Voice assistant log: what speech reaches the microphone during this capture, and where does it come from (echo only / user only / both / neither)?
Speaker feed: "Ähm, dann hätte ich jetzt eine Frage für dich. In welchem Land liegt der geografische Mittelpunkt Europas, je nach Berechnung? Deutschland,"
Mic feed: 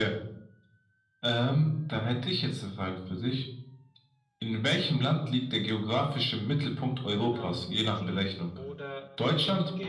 both